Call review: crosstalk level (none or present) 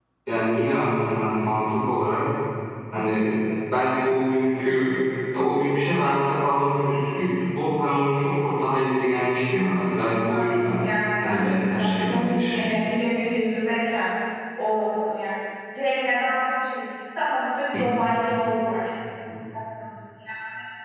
present